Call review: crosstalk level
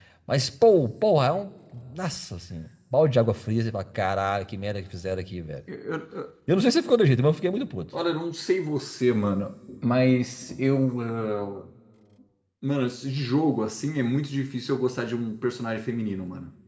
none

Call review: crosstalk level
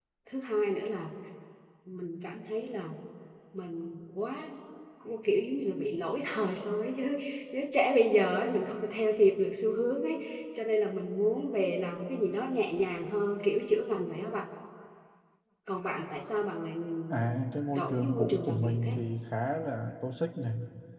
present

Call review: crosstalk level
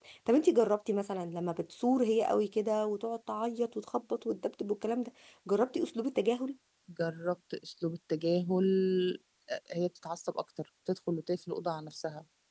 none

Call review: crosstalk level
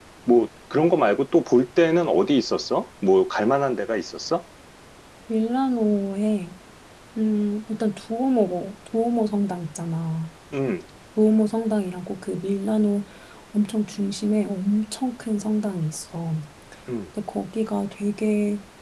none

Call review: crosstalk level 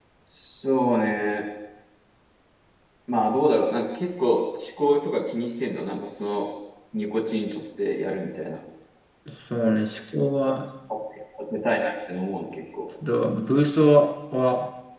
none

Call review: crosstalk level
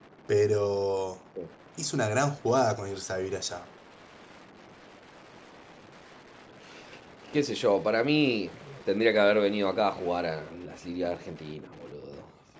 none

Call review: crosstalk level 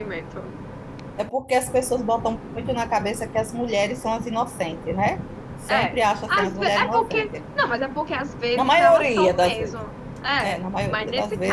present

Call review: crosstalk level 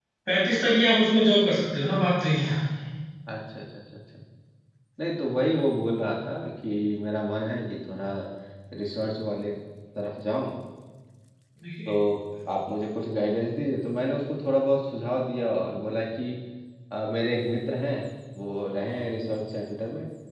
none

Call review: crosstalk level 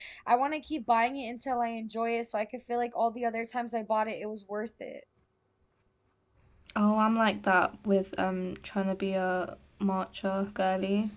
none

